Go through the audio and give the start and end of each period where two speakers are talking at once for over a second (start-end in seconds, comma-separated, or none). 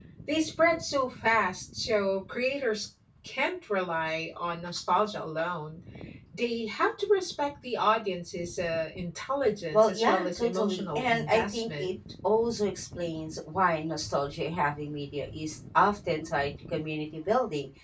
9.7-11.9